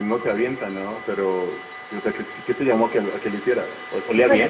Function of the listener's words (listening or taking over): taking over